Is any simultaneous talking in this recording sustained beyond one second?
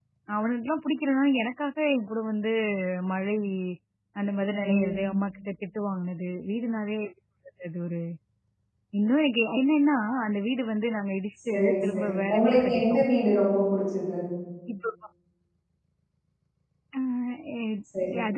Yes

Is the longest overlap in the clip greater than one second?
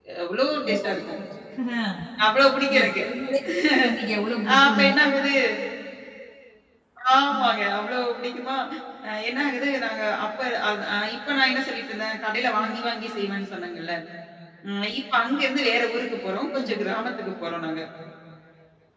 No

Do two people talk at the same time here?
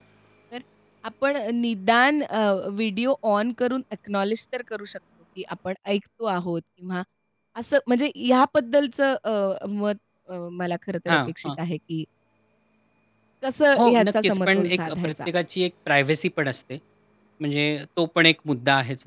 Yes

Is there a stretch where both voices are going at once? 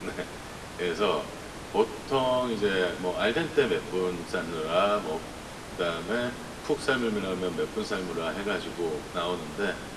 No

